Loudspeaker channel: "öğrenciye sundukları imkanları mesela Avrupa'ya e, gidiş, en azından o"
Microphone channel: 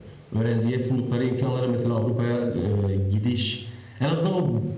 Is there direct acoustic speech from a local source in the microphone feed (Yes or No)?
No